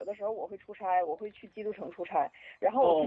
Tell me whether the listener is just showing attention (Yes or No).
Yes